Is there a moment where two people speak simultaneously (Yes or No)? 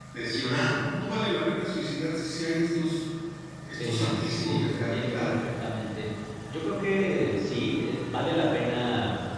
Yes